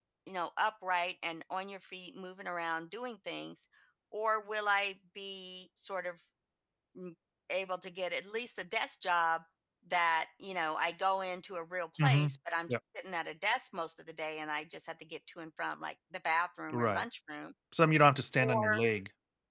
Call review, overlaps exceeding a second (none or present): none